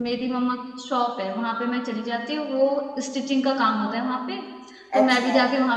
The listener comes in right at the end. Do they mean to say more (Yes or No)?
No